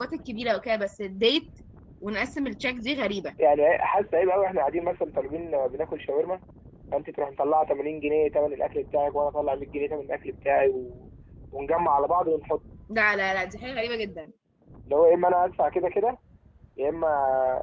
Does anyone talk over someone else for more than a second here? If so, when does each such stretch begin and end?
none

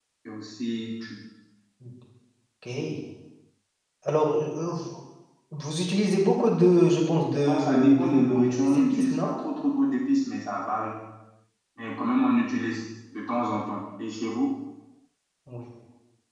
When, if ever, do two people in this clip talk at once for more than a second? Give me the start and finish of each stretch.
7.4-9.3

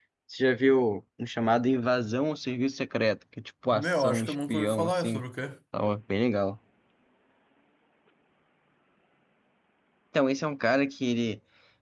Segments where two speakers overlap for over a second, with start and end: 3.7-5.2

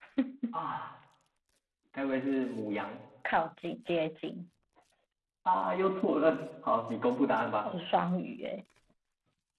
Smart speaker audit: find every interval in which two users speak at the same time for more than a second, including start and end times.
none

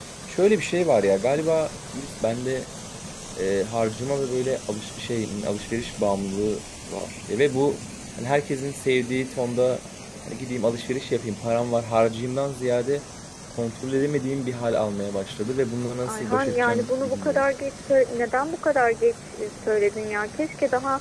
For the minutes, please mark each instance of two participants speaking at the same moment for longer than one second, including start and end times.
16.1-17.4

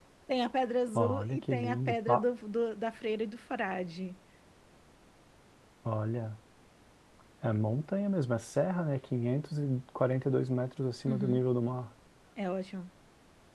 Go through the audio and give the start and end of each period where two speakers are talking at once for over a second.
1.0-2.2

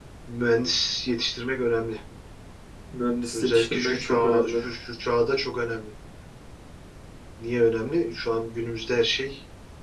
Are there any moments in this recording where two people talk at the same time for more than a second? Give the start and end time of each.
3.3-4.6

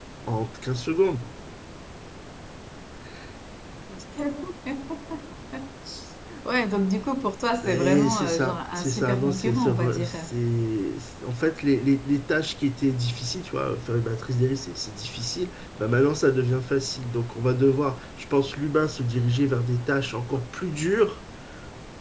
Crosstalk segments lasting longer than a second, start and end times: 7.6-10.1

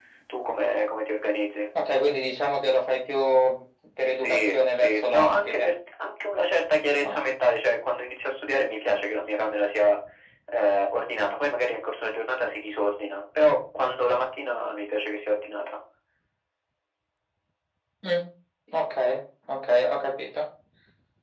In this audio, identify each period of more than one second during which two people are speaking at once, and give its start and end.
4.2-5.7

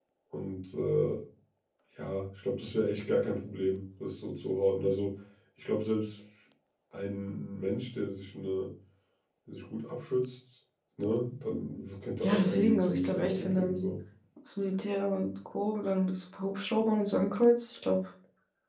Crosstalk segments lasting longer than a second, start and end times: 12.2-13.8

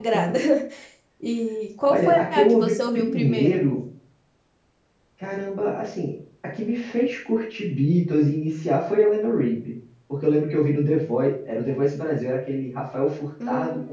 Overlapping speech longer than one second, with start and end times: 1.9-3.6

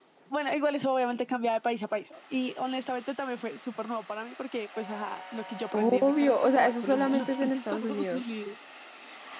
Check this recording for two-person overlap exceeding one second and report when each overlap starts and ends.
5.7-8.3

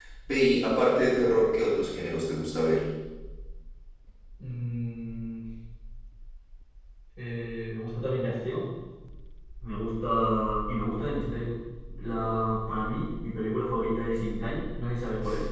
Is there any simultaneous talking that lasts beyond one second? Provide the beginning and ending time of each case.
none

